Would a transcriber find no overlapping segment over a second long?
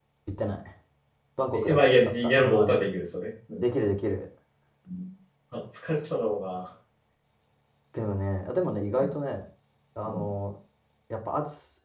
No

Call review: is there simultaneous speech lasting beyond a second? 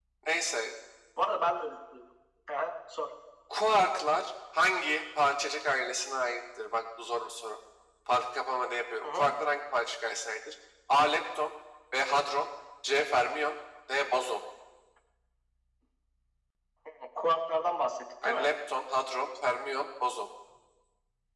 No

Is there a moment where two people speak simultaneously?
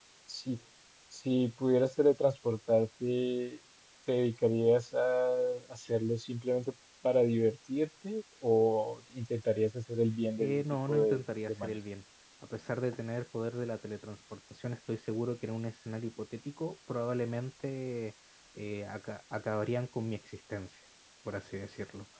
Yes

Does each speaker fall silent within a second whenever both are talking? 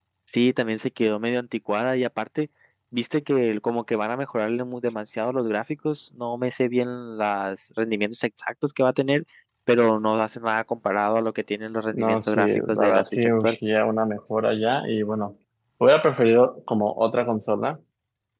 No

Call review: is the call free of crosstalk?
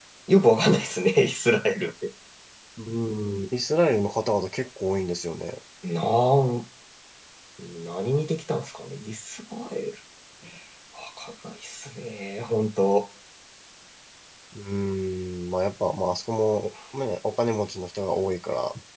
Yes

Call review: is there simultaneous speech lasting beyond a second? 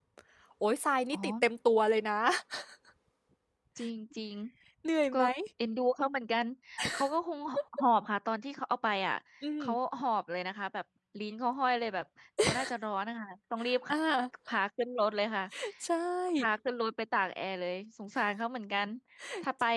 No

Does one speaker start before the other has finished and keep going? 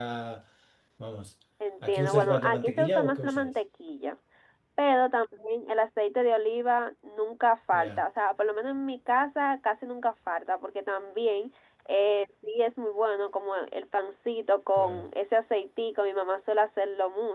Yes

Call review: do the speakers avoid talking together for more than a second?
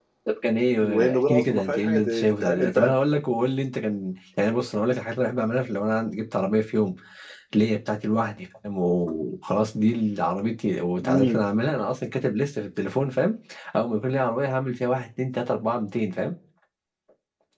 No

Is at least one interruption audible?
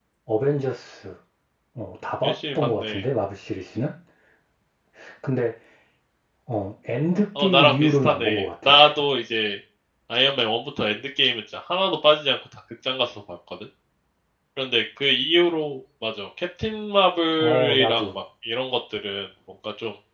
Yes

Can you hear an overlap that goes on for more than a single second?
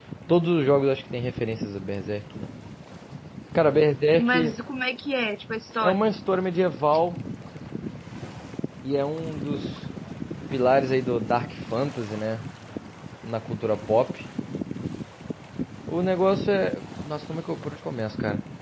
No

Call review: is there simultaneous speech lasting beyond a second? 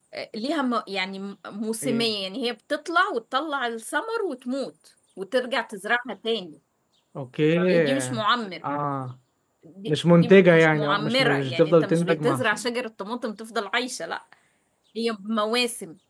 Yes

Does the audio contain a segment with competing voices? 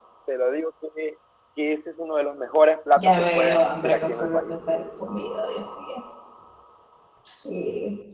Yes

